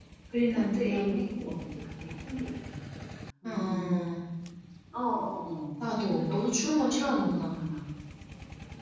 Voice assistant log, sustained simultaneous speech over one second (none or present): present